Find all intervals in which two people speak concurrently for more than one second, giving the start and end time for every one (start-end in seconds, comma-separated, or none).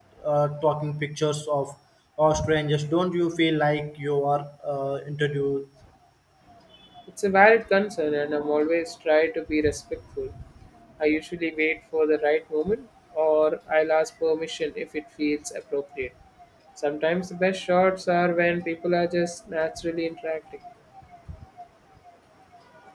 none